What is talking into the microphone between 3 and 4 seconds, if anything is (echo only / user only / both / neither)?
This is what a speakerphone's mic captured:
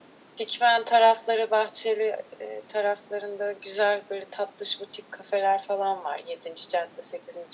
echo only